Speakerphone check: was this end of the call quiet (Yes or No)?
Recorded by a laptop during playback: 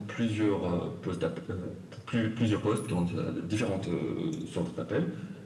Yes